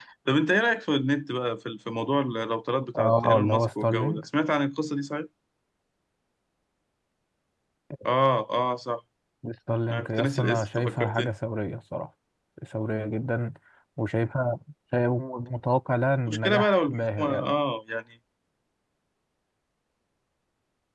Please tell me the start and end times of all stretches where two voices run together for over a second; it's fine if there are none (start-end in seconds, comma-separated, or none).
3.0-4.2, 9.9-11.3, 16.3-17.5